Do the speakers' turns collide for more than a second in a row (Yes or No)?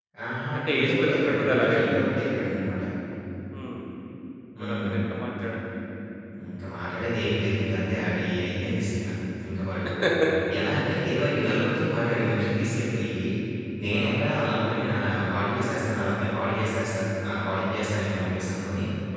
Yes